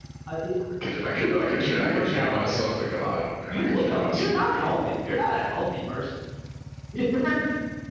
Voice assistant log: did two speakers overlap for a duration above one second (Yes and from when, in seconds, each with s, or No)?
Yes, from 1.1 s